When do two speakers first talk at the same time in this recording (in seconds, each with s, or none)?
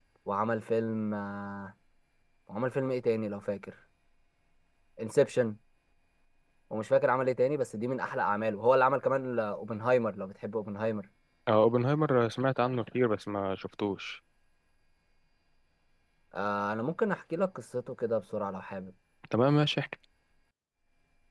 none